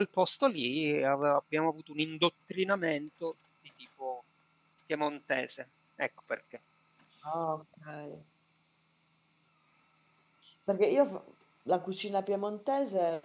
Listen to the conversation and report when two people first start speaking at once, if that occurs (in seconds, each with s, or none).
none